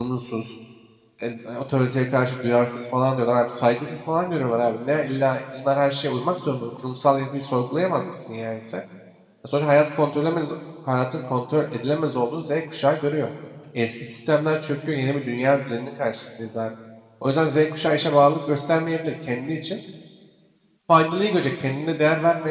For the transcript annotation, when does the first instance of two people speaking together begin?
none

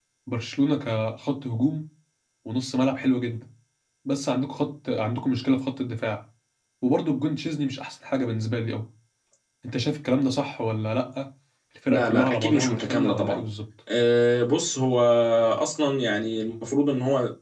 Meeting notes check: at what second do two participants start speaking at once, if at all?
11.9 s

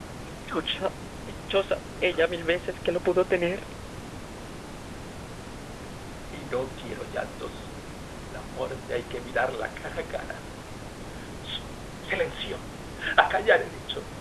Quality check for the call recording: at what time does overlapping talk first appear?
none

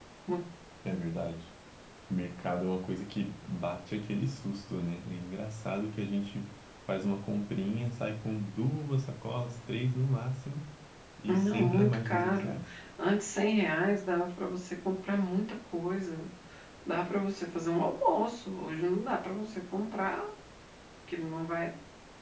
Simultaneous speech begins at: 11.3 s

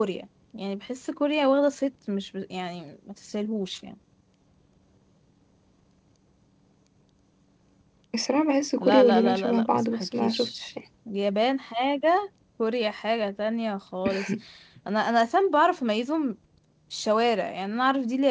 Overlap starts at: 8.8 s

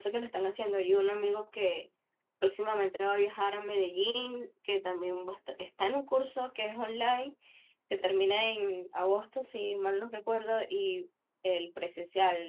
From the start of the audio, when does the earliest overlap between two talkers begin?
none

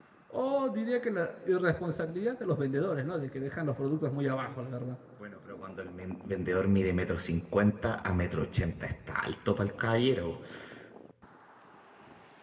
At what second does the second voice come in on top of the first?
none

